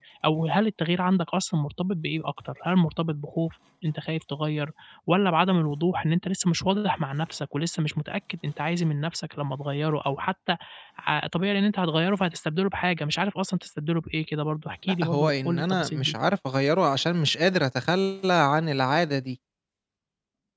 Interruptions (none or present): present